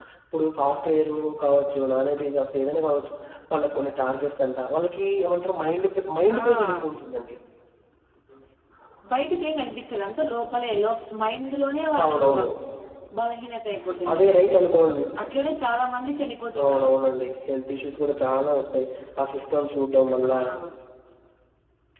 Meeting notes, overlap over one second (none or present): none